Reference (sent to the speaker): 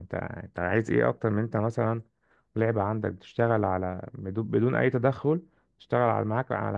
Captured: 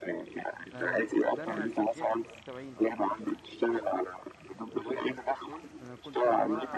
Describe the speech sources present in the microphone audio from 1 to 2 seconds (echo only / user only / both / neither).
both